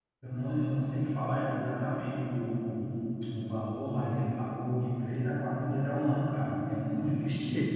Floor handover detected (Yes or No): Yes